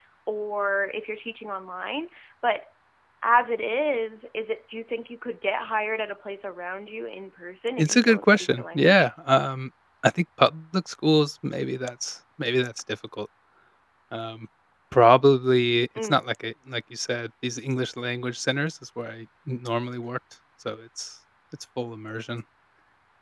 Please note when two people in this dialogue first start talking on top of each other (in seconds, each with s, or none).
7.8 s